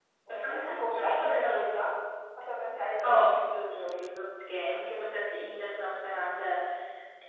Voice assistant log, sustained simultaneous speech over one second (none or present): present